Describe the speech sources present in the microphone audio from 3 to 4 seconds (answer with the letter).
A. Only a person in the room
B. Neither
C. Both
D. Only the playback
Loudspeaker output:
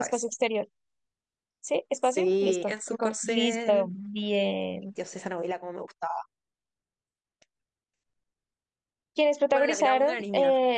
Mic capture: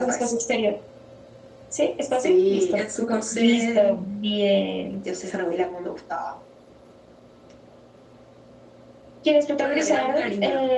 D